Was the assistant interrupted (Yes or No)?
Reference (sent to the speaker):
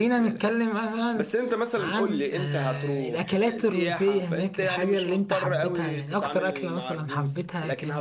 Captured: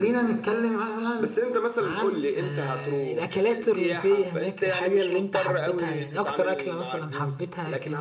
No